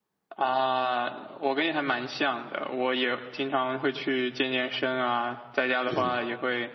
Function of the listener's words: listening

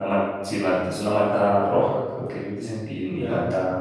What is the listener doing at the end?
taking over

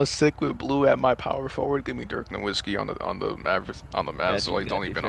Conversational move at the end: taking over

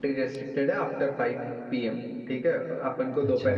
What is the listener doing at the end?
listening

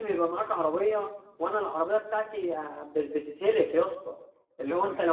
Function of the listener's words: listening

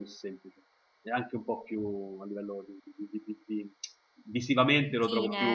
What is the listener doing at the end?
taking over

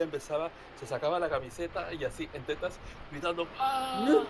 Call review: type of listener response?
listening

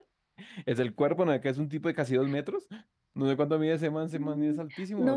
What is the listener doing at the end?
taking over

